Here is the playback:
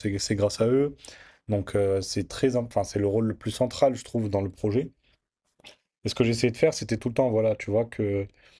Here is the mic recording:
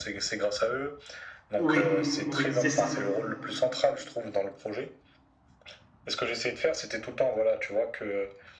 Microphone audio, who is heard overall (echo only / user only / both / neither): both